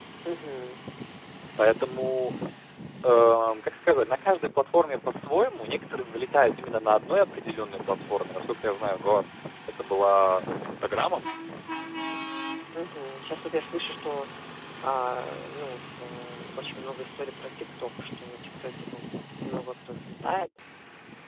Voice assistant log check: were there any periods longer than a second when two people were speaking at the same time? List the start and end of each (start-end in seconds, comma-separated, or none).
none